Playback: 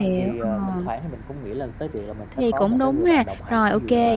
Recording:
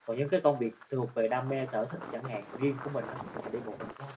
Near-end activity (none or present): present